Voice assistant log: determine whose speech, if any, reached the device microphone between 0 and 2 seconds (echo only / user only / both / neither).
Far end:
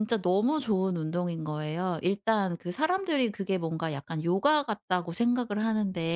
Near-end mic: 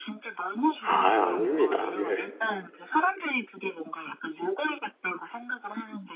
both